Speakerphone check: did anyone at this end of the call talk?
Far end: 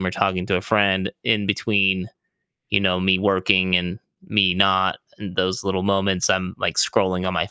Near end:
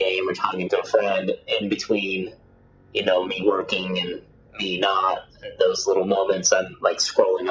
No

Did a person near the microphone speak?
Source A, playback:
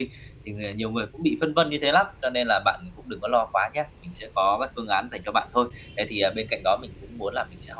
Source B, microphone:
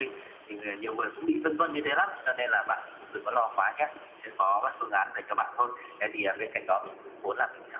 No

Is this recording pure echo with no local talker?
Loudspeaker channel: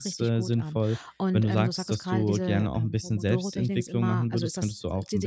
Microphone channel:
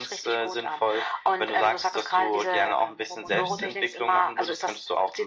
No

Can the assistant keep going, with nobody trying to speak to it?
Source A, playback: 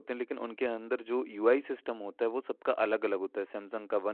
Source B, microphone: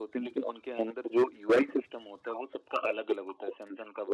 Yes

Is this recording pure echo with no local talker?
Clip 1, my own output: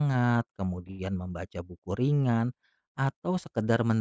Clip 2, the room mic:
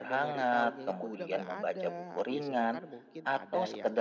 No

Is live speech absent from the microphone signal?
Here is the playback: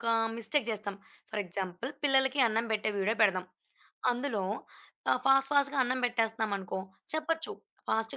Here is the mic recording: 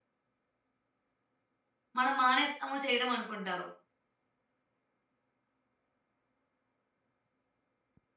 No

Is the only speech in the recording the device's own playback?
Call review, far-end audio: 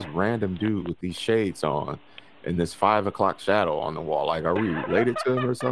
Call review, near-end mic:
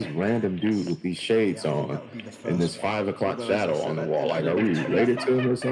No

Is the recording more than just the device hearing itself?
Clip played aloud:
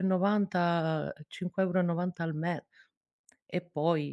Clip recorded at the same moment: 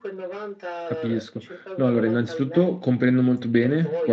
Yes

